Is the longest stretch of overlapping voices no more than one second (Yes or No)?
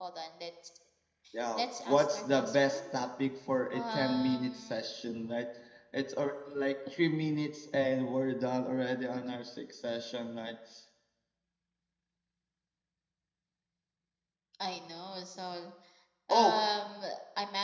No